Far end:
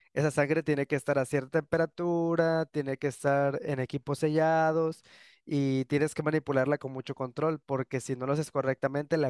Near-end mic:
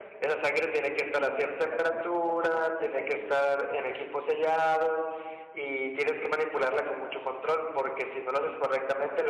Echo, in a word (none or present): present